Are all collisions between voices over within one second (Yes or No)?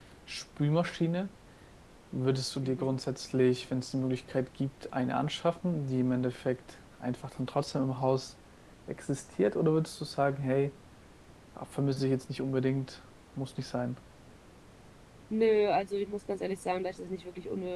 Yes